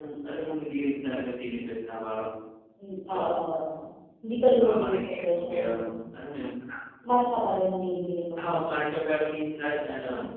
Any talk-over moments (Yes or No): Yes